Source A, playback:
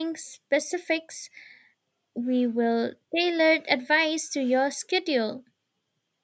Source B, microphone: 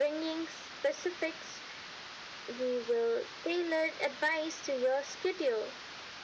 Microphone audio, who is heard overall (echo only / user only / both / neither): echo only